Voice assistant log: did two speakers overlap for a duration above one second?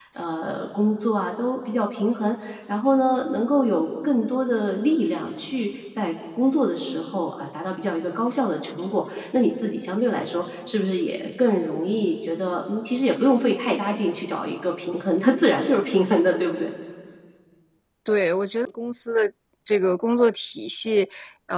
No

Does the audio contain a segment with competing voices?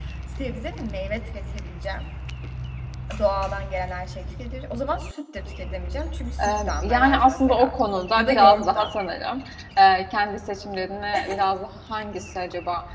Yes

